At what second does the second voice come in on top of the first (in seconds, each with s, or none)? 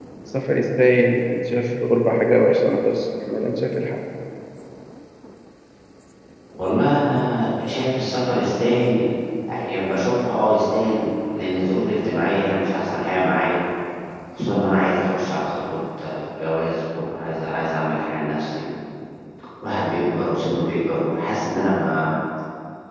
none